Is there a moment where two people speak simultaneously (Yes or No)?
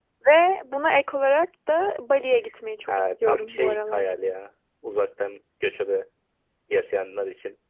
Yes